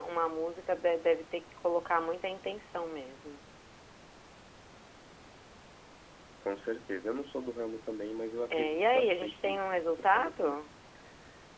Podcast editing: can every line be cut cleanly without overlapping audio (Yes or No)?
No